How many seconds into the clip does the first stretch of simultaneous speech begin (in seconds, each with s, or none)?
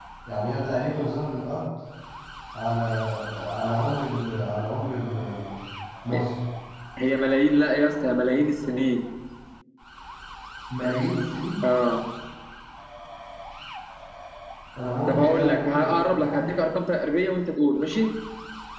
15.1 s